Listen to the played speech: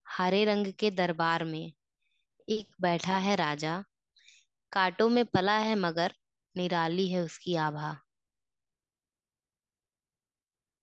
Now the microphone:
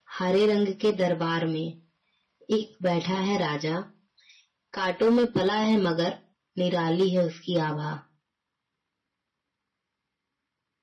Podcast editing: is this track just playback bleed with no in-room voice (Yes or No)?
Yes